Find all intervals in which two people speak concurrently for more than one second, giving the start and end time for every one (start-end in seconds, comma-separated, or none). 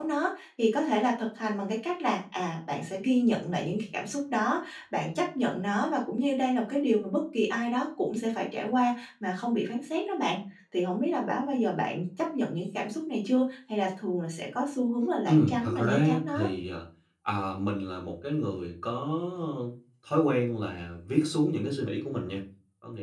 15.2-16.5